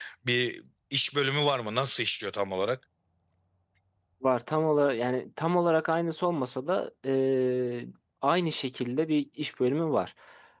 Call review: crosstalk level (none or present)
none